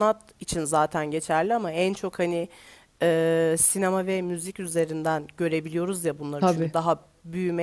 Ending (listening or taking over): listening